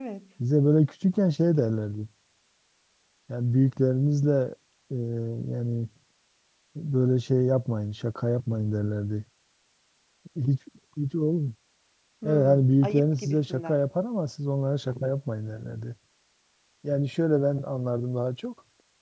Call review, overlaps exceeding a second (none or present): present